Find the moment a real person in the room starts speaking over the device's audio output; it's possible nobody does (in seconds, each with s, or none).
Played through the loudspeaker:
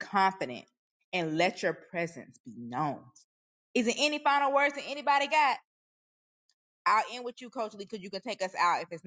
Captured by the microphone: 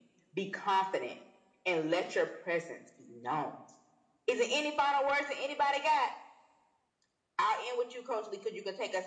none